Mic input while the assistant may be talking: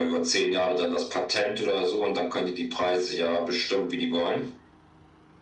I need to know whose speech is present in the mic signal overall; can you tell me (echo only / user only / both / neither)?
echo only